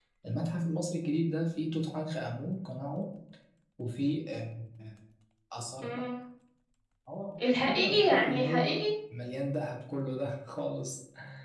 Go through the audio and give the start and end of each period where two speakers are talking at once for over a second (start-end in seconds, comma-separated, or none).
7.6-8.9